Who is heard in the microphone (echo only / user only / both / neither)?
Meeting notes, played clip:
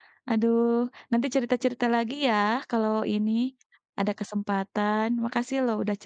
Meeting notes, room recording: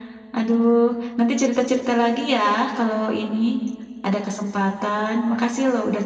echo only